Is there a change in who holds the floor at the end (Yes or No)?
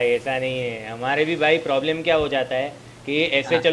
No